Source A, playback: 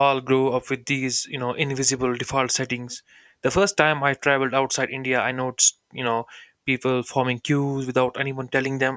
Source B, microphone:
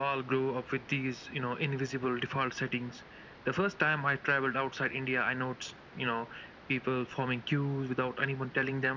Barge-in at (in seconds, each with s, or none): none